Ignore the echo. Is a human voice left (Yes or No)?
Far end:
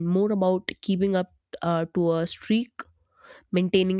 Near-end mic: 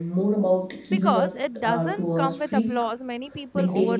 Yes